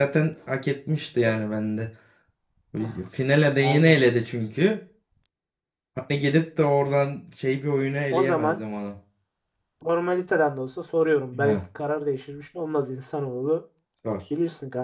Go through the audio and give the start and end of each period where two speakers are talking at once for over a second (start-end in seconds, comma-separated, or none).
none